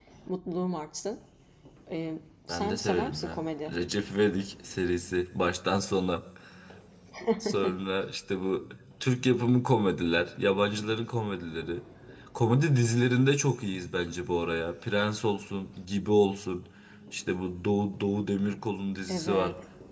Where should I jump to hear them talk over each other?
2.5 s

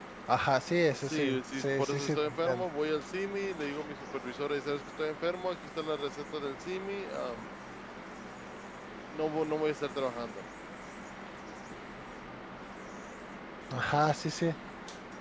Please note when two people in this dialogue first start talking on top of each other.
1.0 s

